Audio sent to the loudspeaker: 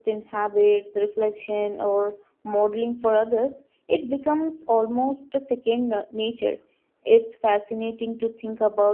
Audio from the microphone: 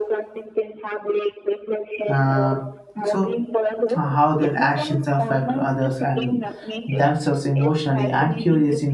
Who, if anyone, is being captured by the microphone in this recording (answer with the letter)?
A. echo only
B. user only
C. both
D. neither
C